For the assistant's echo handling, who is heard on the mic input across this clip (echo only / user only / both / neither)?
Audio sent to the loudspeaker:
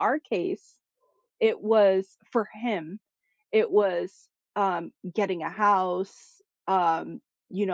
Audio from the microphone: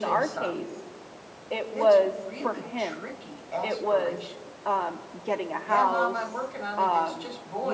both